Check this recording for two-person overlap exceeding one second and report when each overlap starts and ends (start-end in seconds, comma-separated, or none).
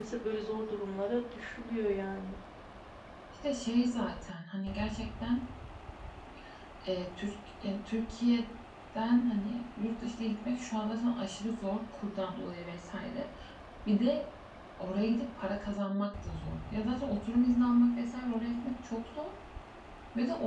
none